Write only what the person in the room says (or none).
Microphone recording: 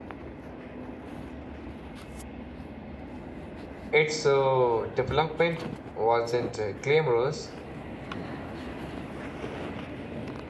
its uh, development wasn't uh, glamorous,